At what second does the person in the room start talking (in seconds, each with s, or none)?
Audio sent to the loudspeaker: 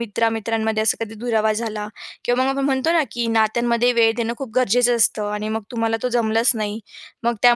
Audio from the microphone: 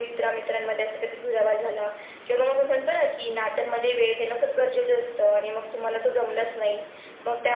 none